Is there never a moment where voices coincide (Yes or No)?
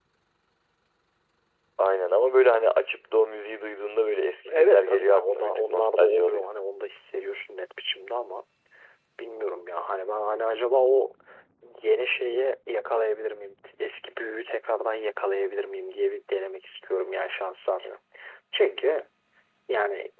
No